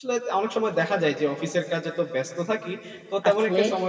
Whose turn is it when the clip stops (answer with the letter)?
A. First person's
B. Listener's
A